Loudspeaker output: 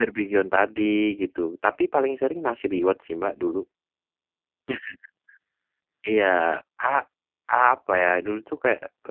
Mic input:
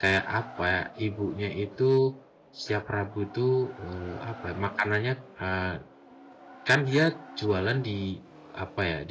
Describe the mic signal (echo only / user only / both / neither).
user only